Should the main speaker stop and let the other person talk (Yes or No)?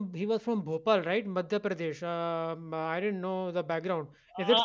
Yes